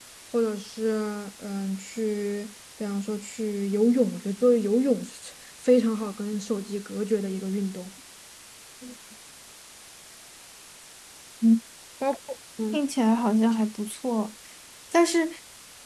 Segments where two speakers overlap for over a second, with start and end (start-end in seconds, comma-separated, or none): none